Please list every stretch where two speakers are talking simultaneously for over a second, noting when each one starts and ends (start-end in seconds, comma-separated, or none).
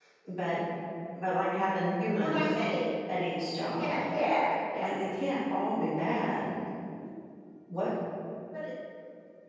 none